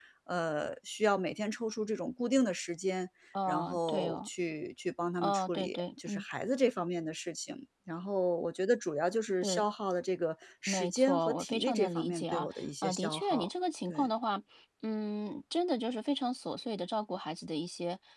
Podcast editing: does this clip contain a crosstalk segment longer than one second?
Yes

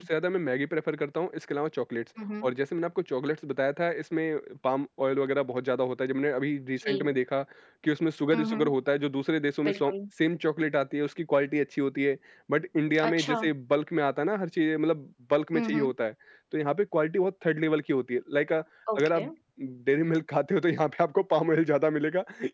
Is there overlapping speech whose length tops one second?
No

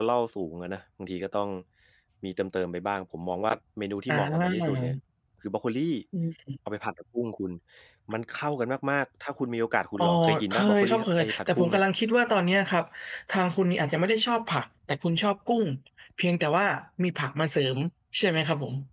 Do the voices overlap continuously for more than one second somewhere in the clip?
Yes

